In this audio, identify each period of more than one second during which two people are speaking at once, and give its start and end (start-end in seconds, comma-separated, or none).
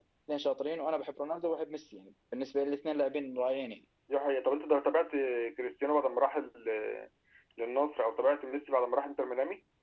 none